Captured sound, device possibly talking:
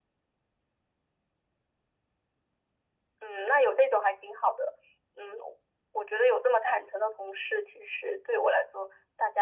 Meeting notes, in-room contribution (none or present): none